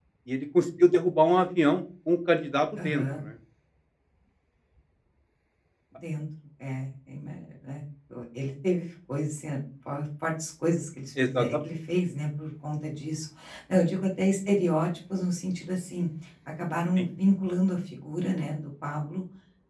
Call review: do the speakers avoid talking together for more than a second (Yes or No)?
Yes